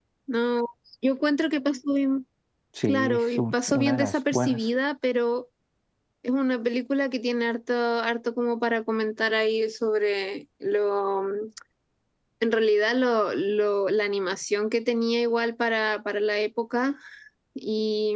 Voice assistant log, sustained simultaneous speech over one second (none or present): present